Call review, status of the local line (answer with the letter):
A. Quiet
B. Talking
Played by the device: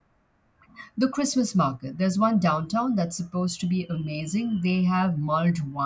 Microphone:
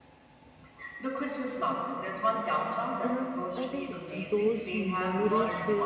B